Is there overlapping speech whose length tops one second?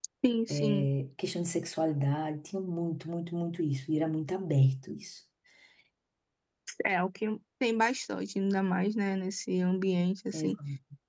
No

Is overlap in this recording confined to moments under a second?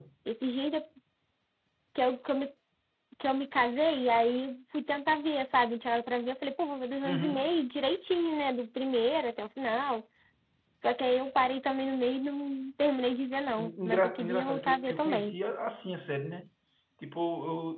No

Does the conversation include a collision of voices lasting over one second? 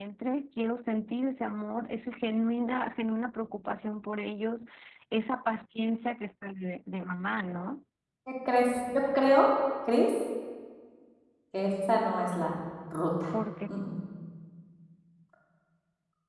No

